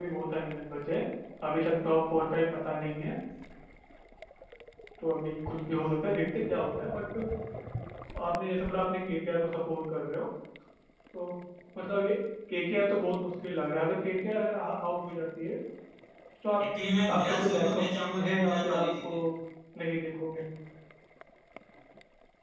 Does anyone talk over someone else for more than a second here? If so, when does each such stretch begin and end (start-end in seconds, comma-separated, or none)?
17.1-19.2